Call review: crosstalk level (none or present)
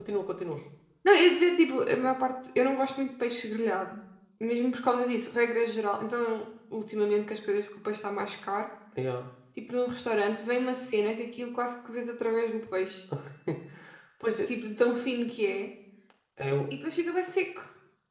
none